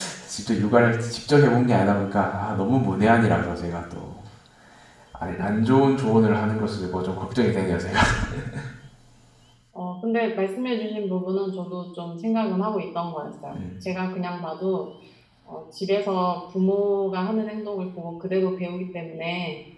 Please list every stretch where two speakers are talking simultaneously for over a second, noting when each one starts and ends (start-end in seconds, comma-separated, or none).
none